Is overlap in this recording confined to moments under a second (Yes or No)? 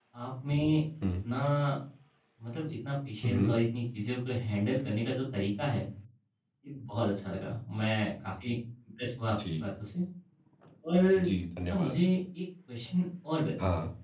Yes